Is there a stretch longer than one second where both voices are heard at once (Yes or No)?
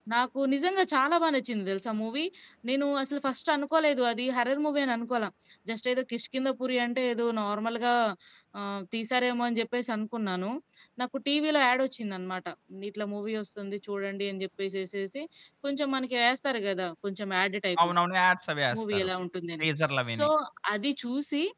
No